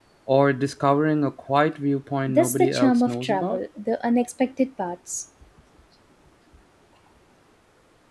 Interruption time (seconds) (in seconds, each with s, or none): 2.3 s